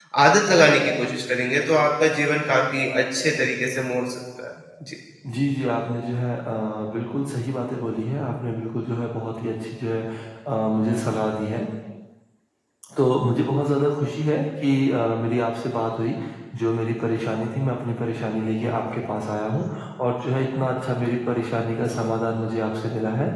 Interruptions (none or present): none